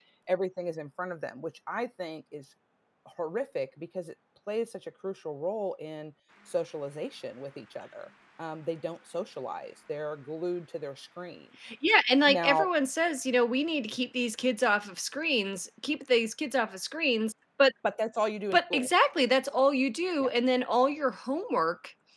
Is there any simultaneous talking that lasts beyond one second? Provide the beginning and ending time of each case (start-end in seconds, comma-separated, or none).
none